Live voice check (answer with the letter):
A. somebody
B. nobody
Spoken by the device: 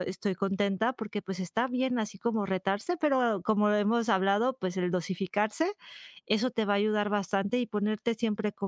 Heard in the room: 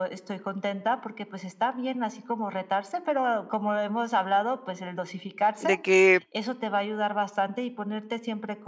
A